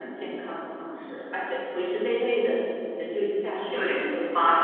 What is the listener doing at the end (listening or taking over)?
taking over